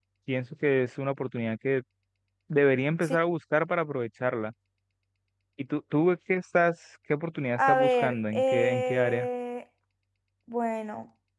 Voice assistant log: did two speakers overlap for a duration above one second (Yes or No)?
Yes